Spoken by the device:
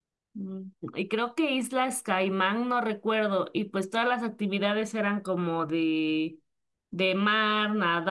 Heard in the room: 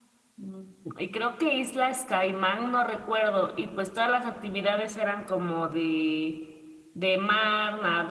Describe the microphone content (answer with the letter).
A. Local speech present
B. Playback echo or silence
B